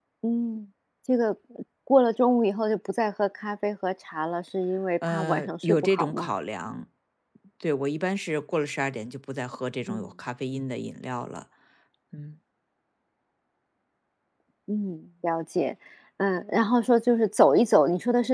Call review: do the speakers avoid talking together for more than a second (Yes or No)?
No